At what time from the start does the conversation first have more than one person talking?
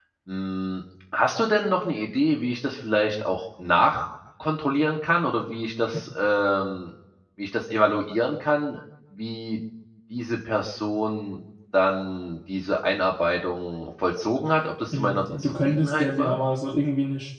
15 s

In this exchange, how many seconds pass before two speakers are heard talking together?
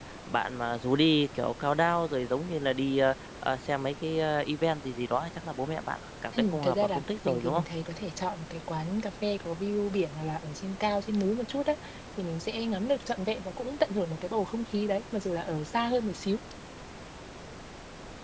6 s

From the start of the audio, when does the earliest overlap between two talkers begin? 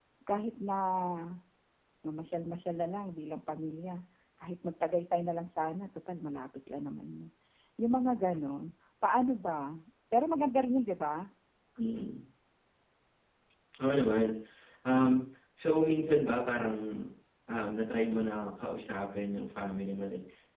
none

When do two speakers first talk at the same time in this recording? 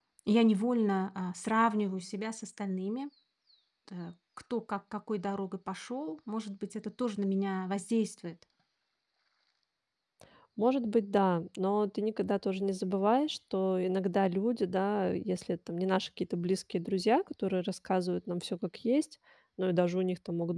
none

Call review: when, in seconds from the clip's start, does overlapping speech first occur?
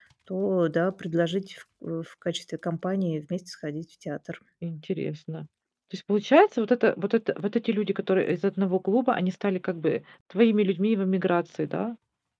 none

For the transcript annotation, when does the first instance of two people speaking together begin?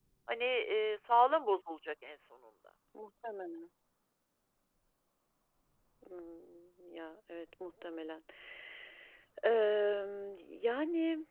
none

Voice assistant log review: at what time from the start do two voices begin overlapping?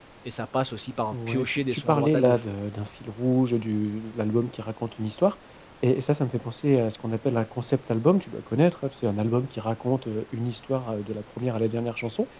1 s

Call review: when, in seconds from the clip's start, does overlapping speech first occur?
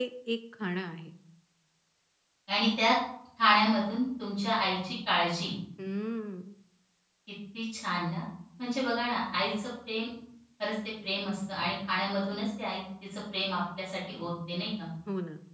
none

